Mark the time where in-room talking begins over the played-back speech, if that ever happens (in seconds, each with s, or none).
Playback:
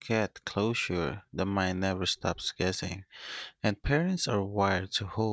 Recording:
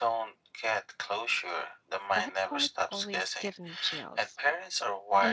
2.1 s